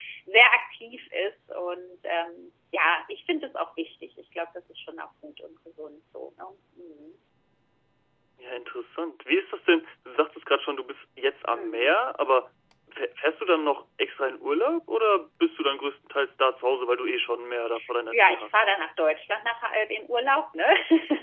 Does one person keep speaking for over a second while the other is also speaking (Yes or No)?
No